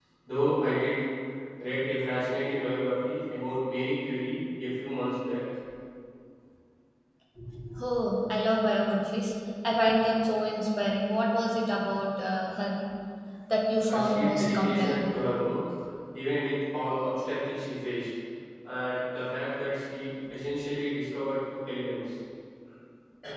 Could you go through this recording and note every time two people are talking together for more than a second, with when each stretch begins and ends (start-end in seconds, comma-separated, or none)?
13.9-15.1